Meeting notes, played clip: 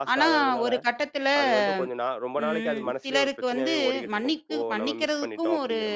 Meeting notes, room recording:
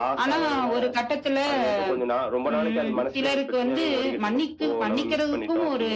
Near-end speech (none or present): none